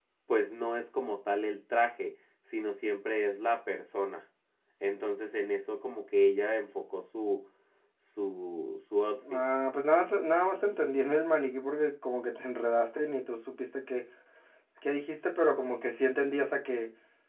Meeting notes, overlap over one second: none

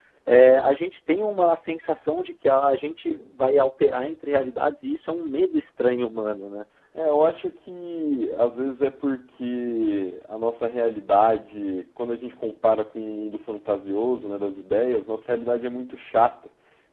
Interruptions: none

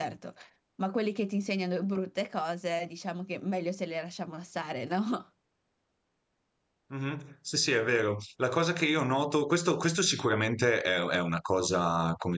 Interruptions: none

